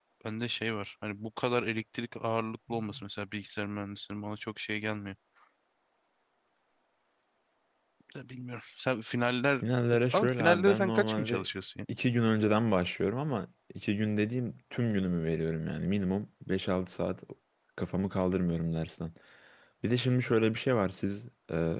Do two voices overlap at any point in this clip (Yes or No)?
Yes